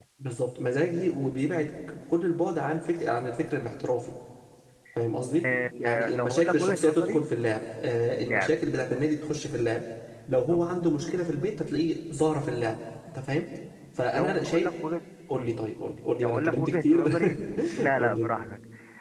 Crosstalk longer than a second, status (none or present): present